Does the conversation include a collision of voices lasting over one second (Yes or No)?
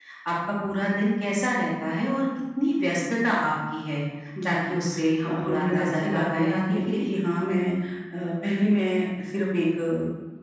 Yes